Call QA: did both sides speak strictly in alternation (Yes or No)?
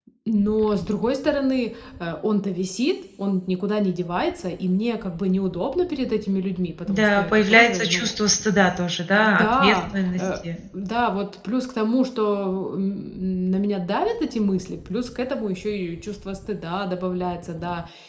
No